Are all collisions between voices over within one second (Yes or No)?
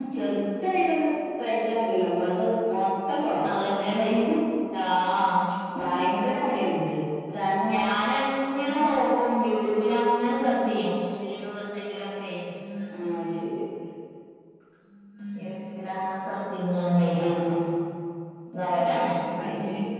Yes